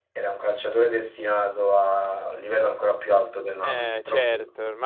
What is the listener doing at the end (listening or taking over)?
taking over